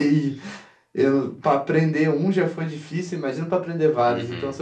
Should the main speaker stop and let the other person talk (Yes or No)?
Yes